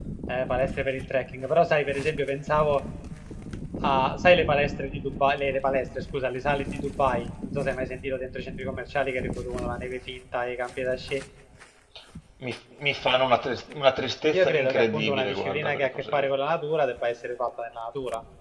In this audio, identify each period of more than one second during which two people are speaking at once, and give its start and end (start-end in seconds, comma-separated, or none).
14.3-16.3